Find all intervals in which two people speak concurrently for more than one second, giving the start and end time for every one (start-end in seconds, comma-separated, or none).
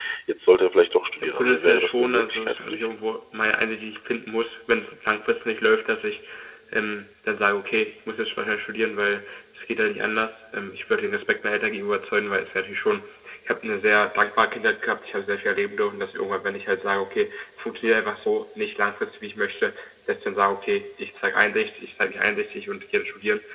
1.2-2.9